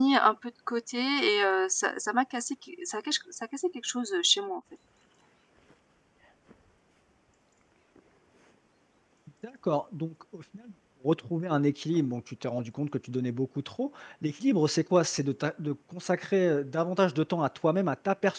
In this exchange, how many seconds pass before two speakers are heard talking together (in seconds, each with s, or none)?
none